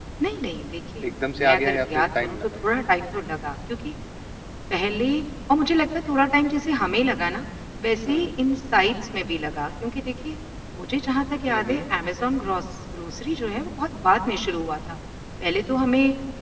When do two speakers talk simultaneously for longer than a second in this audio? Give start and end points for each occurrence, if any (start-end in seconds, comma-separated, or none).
1.0-2.6